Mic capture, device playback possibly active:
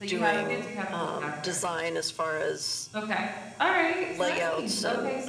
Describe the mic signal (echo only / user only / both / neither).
both